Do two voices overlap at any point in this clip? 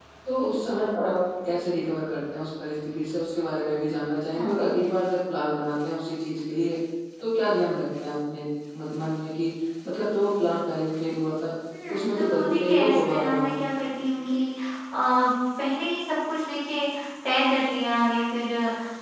Yes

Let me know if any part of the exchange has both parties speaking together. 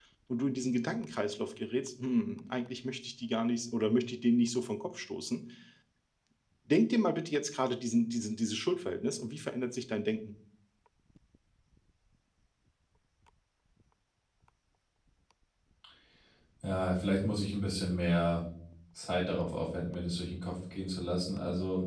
No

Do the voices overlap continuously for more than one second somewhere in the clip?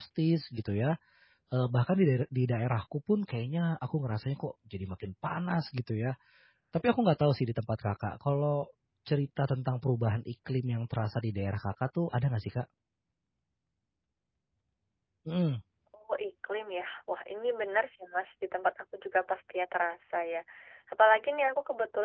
No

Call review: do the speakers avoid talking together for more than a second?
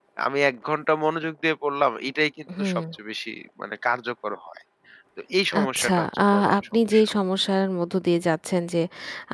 No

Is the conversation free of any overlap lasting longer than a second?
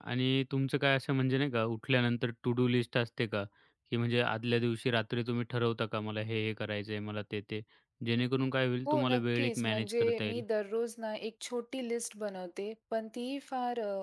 No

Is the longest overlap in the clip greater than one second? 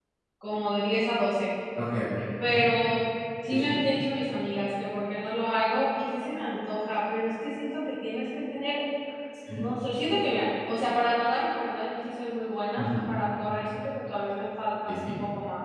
No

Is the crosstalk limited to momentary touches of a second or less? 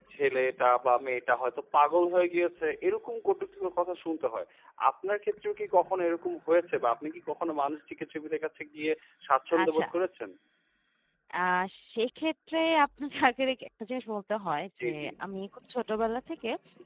Yes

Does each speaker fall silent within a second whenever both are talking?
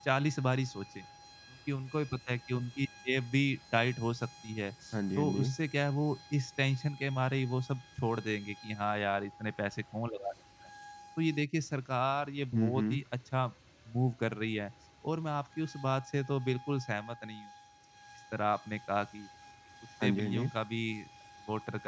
Yes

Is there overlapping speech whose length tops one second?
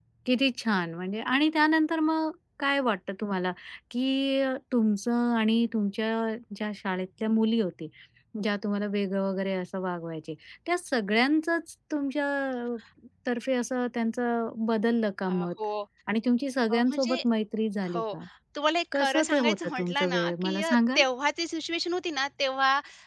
Yes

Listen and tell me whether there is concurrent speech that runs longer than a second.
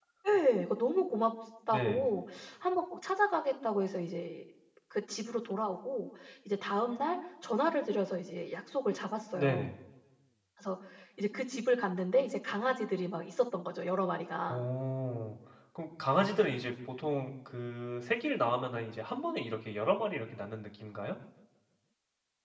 No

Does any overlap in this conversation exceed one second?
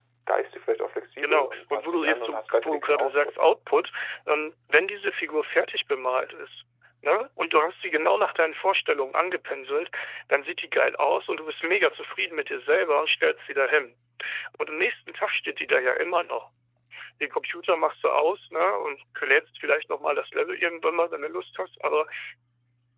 Yes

